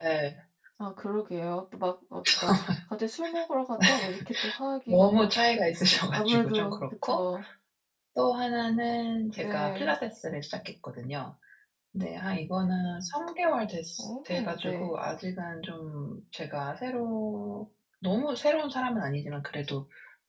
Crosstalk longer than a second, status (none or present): present